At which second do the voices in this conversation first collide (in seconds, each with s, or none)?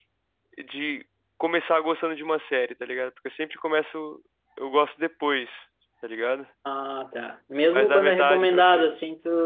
7.7 s